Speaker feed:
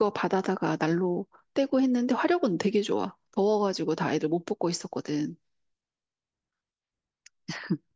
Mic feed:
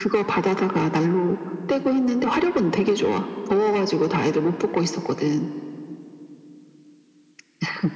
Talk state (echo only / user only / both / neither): echo only